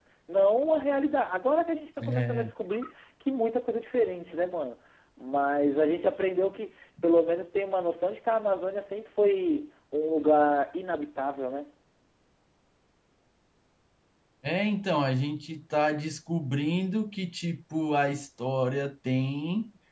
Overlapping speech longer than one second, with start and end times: none

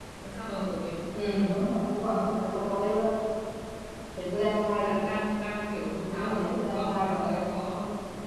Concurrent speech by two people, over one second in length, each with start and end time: 6.1-7.4

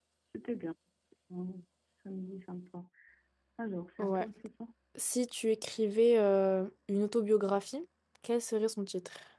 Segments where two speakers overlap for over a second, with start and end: none

